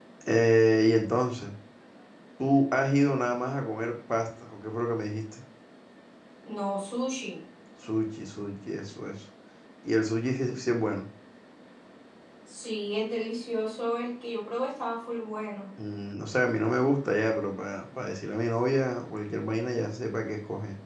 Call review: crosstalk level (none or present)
none